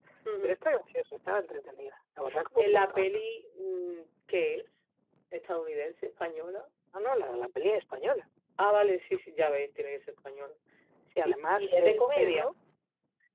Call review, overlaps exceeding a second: present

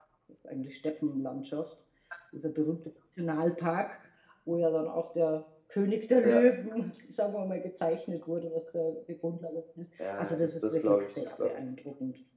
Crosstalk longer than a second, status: present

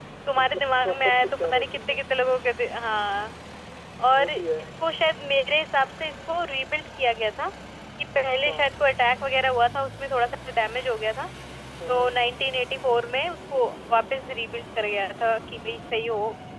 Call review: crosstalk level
present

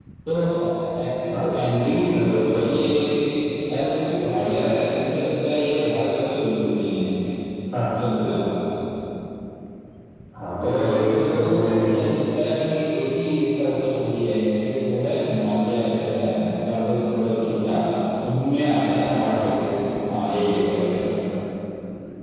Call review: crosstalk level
present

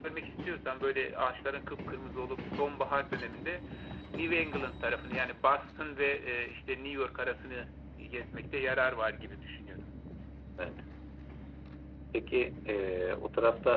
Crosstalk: none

